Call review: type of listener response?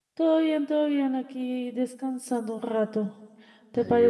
listening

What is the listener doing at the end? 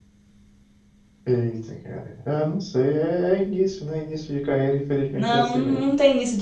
taking over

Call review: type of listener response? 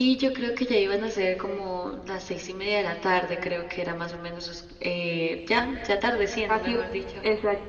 taking over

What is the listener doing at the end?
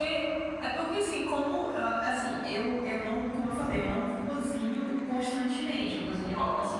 listening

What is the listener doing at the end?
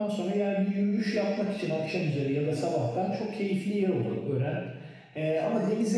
listening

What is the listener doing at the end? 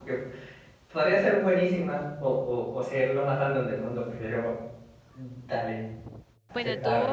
taking over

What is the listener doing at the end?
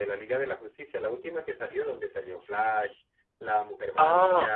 taking over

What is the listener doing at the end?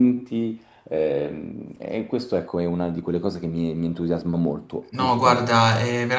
taking over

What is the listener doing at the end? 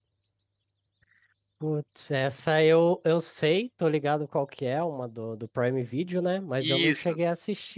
listening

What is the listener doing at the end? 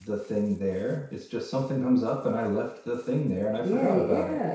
taking over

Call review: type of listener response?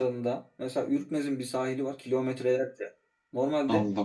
listening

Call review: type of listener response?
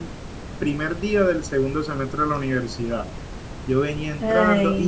listening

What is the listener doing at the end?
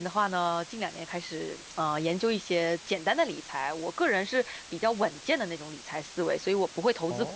listening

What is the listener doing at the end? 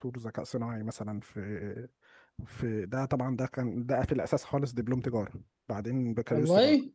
listening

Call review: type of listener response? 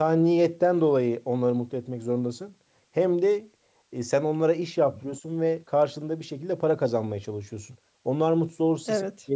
listening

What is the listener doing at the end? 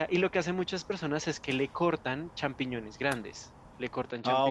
listening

